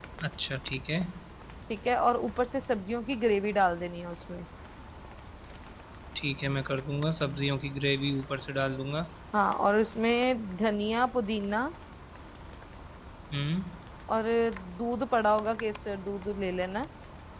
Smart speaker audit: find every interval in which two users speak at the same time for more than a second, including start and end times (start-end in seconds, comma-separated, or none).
none